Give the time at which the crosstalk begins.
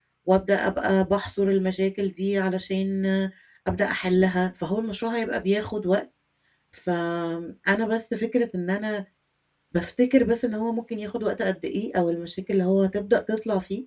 none

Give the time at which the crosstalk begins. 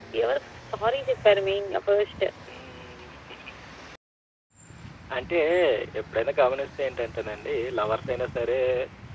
none

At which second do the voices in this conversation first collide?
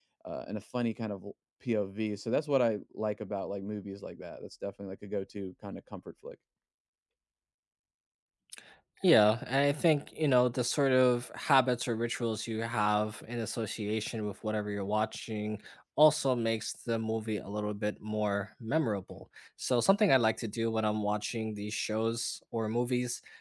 none

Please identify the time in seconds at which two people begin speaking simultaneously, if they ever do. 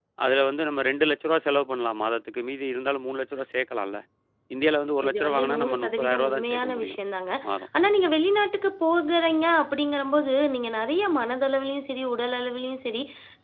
5.1 s

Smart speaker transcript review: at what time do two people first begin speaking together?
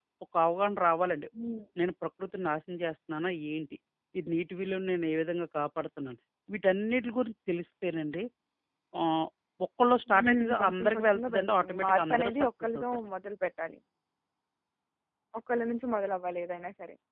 10.2 s

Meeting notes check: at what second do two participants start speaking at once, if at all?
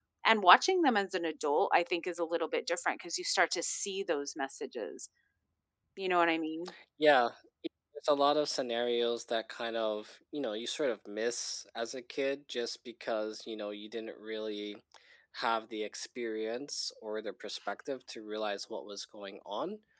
none

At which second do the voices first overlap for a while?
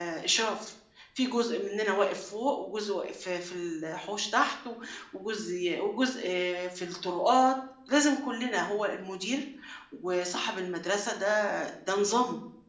none

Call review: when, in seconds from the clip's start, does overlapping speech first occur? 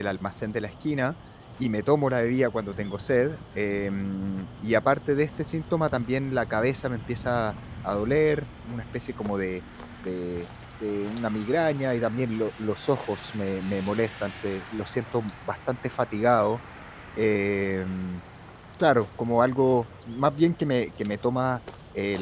none

